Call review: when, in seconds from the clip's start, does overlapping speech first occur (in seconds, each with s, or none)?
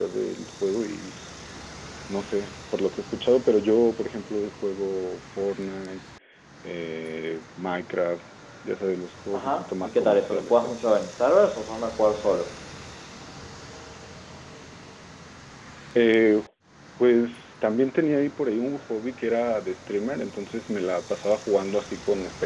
9.3 s